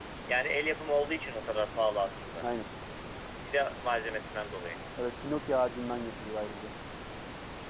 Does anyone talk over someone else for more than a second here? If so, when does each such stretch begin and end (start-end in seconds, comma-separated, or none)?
none